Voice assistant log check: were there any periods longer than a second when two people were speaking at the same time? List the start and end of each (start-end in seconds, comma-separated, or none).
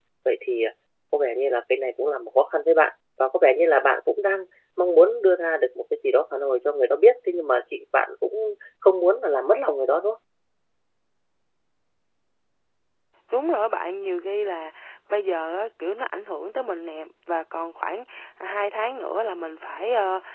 none